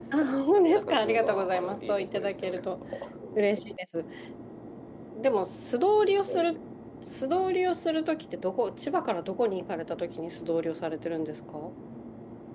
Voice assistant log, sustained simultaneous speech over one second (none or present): present